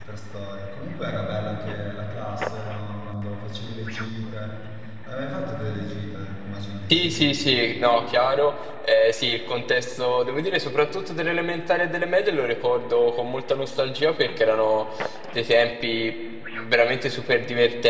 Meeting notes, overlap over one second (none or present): none